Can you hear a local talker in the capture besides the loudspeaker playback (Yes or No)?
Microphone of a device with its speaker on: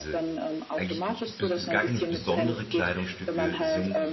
Yes